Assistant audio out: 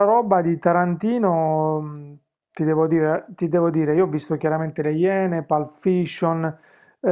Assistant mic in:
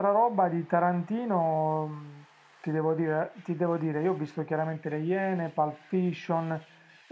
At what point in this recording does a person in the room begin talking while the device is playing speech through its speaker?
none

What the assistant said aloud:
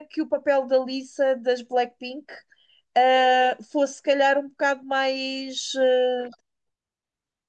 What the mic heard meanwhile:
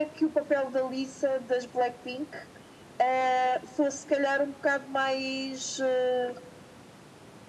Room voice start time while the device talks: none

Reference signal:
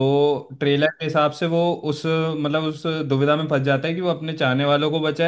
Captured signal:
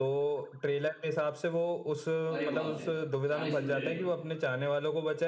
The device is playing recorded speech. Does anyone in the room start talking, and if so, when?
2.4 s

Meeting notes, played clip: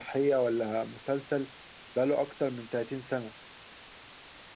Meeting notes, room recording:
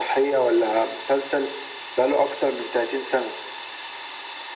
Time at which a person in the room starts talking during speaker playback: none

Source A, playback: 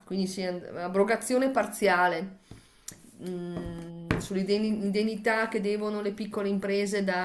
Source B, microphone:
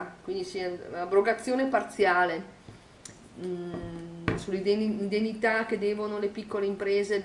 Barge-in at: none

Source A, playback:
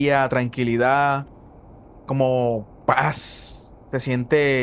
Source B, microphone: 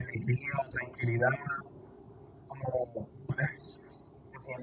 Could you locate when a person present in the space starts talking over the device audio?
none

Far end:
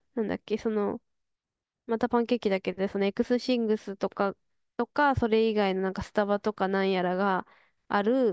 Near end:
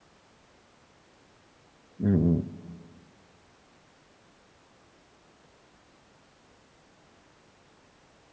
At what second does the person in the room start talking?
2.0 s

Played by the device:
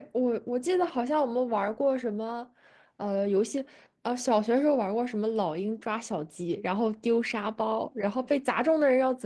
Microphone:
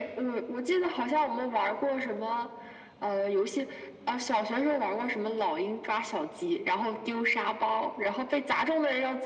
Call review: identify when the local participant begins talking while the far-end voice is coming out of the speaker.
none

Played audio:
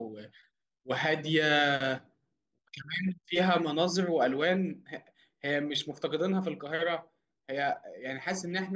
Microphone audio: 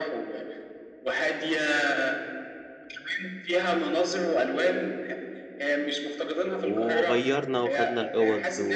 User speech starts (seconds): 6.6 s

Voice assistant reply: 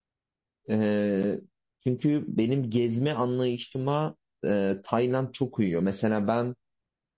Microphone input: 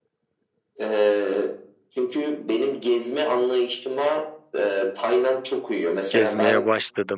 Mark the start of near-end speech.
6.1 s

